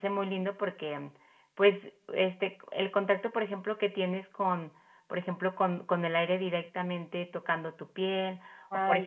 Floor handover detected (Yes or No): No